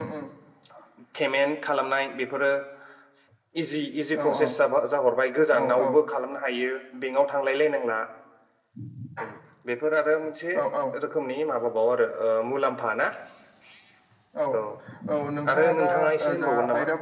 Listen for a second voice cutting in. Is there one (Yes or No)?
Yes